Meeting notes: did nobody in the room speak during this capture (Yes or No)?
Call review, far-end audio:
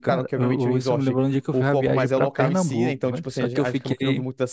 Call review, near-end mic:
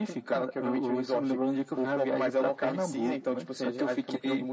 Yes